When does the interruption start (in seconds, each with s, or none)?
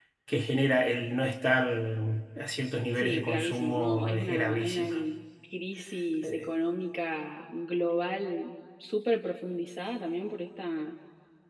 2.9 s